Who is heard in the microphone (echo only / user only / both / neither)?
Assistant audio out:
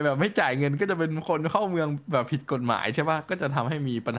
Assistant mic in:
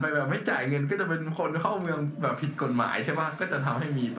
echo only